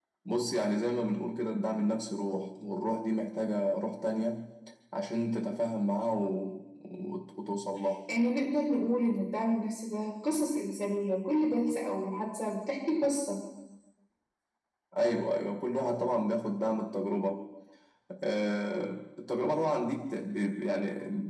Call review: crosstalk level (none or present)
none